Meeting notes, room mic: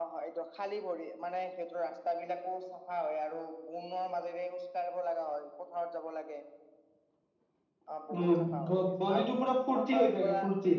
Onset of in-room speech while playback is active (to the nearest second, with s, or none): 8 s